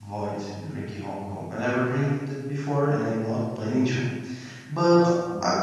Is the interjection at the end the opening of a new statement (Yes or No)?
No